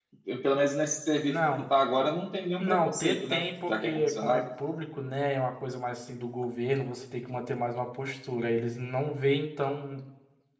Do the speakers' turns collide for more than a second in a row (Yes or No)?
Yes